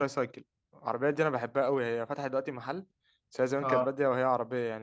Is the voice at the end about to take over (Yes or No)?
No